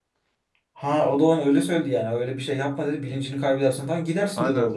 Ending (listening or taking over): taking over